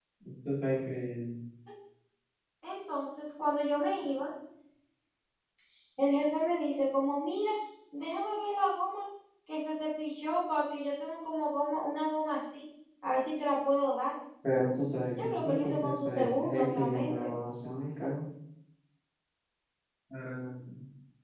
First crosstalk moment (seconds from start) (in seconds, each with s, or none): 15.1 s